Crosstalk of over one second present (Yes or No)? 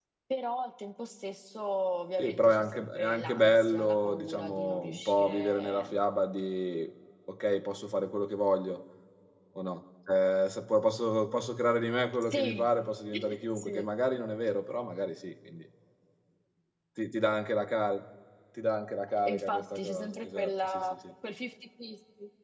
Yes